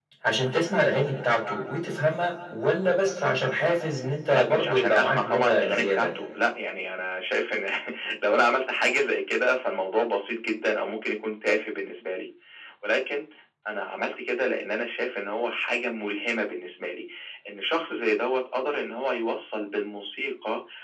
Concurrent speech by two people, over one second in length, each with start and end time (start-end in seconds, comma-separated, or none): 4.3-6.1